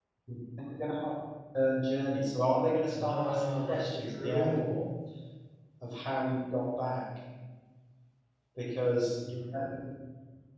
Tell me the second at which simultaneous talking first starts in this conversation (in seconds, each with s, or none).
2.9 s